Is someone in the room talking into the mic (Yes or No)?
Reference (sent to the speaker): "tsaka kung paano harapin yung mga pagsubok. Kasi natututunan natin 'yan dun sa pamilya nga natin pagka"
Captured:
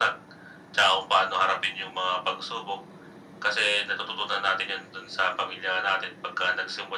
No